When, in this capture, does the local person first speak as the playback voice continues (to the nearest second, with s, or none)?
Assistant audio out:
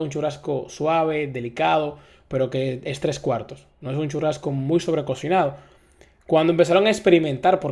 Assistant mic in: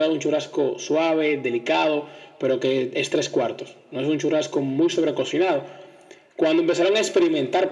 none